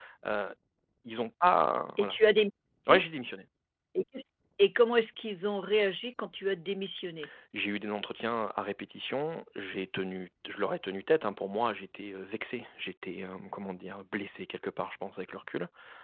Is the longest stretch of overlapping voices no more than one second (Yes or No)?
Yes